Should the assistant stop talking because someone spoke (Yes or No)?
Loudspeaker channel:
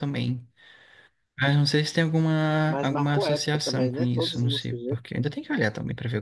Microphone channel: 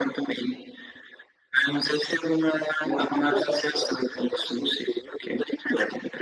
No